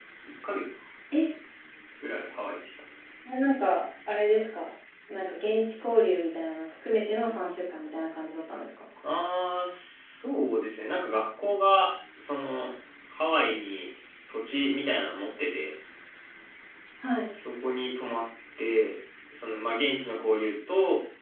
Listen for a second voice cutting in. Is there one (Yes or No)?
No